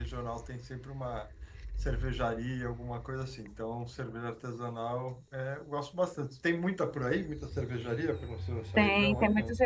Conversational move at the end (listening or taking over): taking over